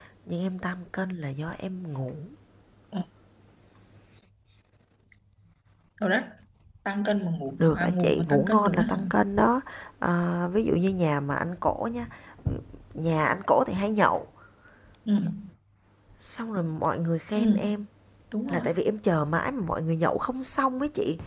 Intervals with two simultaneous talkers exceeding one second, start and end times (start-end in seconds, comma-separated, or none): 7.6-9.0